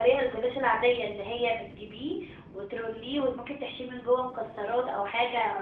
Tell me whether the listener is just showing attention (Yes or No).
No